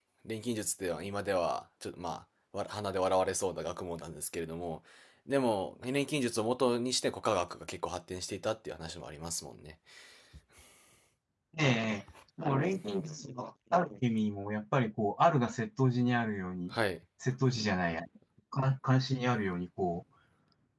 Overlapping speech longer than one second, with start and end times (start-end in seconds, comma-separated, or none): none